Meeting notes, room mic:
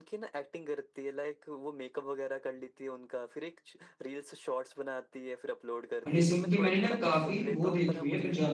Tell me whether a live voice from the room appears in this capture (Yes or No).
Yes